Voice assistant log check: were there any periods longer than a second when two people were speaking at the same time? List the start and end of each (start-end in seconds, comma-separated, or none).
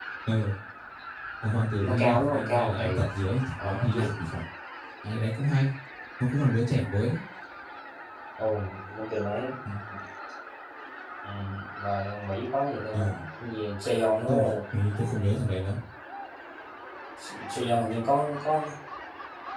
1.8-3.0